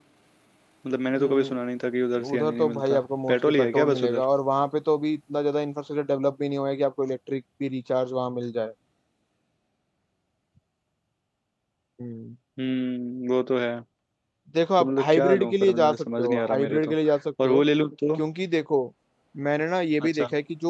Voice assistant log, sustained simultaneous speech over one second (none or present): present